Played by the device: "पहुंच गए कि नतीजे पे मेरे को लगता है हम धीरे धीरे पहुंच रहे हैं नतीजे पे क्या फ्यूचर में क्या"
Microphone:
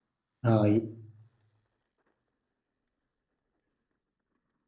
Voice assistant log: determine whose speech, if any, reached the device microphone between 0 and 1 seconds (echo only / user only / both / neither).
user only